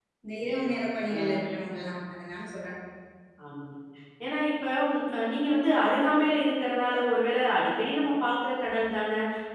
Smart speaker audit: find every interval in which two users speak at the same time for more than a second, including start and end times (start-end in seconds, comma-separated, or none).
none